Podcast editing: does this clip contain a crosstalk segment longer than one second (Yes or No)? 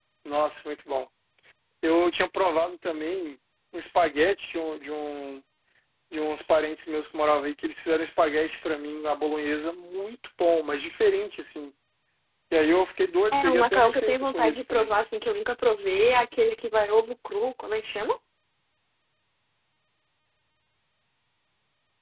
Yes